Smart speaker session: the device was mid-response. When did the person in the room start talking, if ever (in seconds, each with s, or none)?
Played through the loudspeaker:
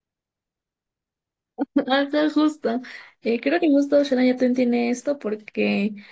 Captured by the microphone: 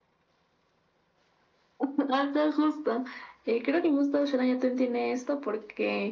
none